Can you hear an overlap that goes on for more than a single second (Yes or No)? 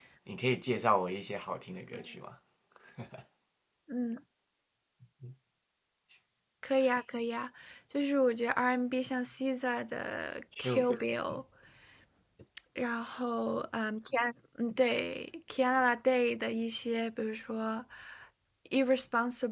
No